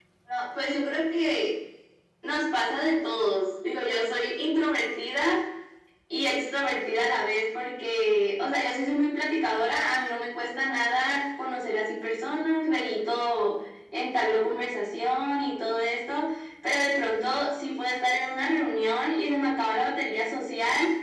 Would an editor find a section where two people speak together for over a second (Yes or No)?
No